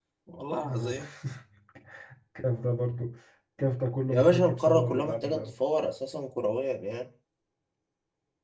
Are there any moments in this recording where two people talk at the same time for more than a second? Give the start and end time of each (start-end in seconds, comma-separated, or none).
4.1-5.4